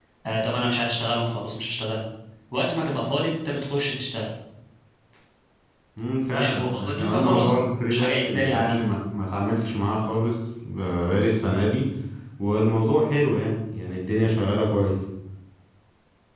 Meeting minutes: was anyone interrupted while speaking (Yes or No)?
Yes